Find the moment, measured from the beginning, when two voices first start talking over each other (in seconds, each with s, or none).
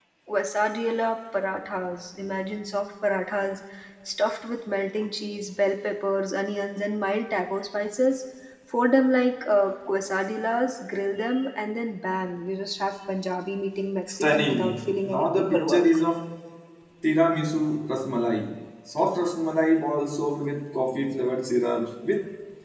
14.2 s